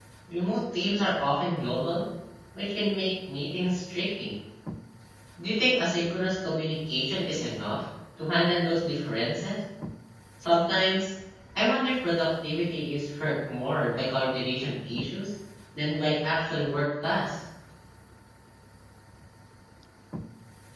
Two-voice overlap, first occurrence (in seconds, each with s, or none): none